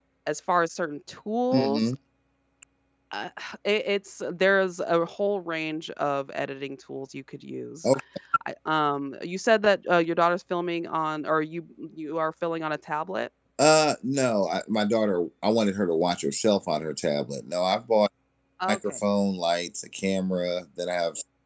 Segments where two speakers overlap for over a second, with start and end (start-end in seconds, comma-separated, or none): none